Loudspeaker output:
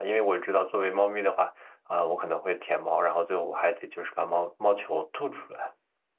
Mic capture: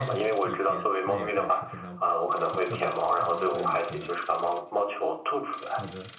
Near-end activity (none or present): present